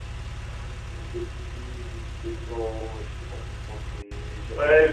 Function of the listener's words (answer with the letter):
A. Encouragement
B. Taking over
B